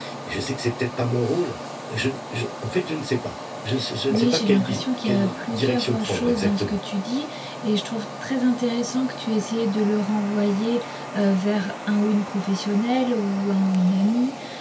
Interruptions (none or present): present